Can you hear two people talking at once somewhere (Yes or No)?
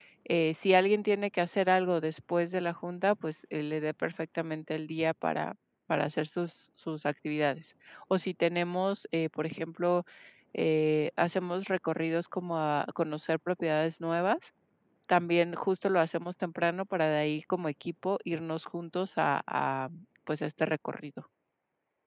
No